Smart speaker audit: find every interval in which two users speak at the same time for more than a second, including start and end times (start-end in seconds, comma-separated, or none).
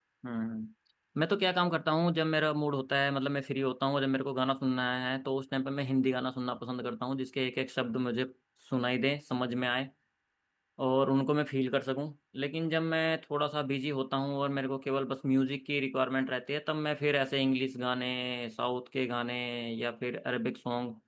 none